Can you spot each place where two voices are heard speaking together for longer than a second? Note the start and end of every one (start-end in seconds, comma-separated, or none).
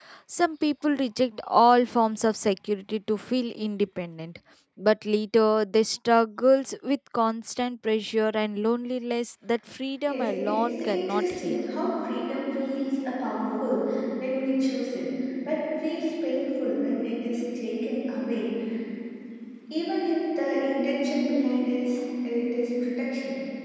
10.1-11.6